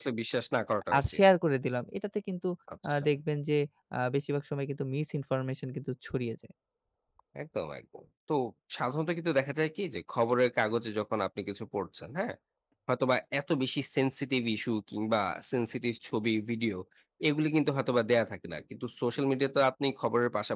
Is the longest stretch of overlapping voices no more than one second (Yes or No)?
Yes